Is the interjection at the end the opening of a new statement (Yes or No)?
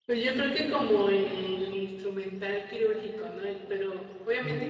No